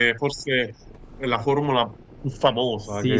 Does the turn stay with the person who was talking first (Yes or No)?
No